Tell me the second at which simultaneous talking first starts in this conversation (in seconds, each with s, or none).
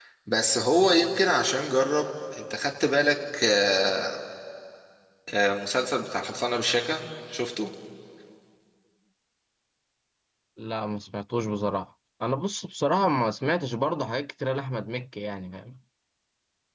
none